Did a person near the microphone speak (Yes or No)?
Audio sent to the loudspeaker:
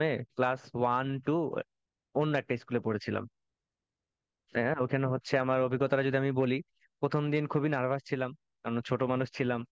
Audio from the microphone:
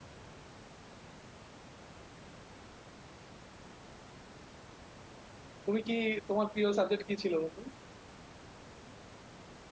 Yes